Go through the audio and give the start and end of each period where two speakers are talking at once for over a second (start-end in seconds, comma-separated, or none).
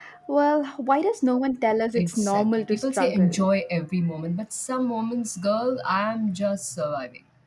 2.0-3.5